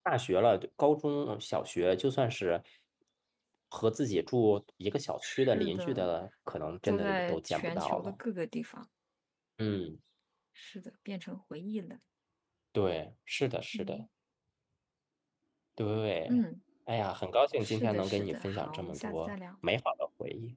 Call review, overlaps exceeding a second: present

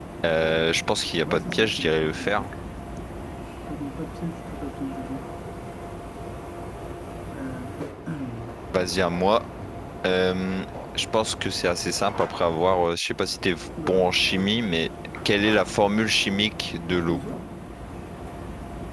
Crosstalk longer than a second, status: present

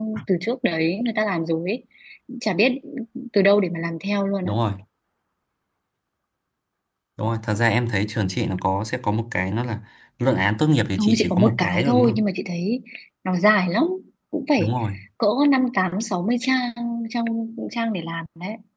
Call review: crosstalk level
present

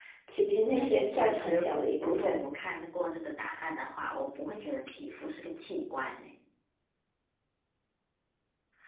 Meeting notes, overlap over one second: present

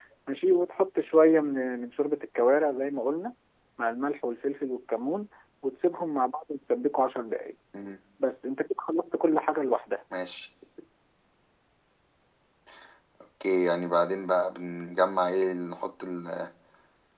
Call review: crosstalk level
none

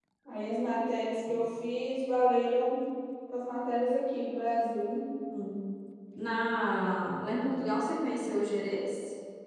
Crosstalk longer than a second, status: none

